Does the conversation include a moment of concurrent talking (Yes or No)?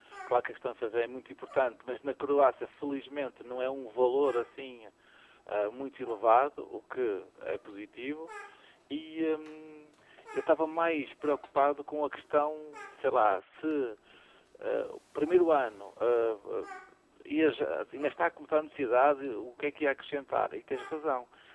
No